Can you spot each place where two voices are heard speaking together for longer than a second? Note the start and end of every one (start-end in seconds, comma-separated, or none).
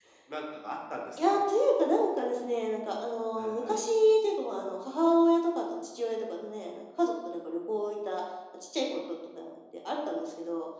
none